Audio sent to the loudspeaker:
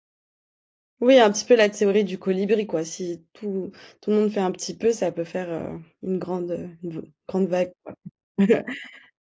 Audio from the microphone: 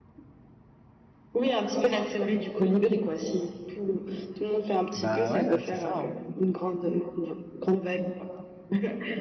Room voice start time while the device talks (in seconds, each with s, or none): 5.0 s